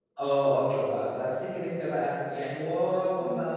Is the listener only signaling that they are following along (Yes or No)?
Yes